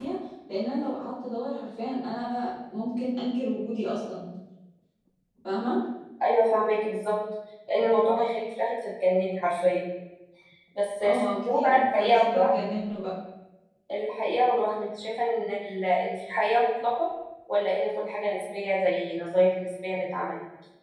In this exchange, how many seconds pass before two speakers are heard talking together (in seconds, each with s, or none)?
11.0 s